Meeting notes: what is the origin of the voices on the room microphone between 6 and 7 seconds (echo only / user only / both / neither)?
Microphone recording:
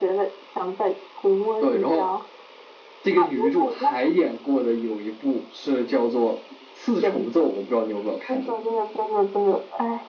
echo only